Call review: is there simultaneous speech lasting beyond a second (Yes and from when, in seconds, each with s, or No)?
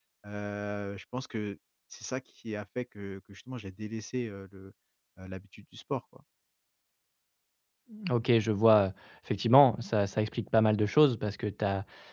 No